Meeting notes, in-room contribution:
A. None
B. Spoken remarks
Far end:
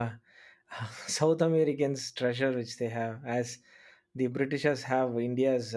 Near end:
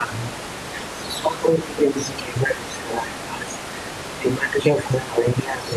A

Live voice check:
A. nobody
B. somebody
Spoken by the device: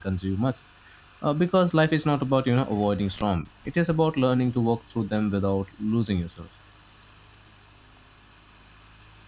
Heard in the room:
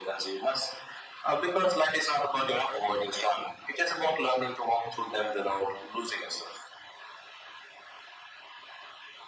A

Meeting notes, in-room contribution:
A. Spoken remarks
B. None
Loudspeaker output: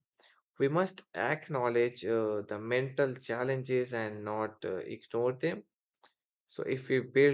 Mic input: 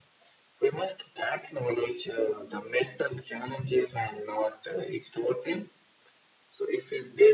B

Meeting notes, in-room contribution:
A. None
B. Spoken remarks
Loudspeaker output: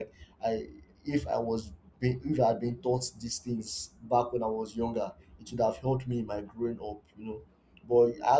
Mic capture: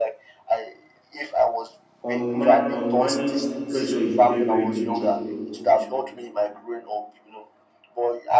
B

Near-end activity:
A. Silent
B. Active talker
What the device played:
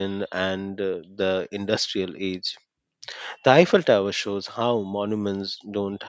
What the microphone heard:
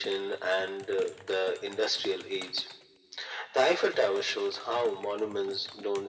A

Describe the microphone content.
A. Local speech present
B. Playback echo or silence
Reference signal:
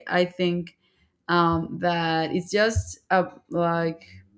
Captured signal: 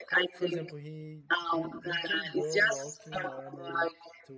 A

